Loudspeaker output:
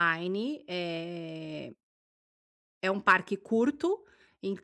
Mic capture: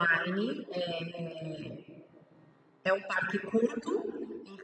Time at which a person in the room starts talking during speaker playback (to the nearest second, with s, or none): none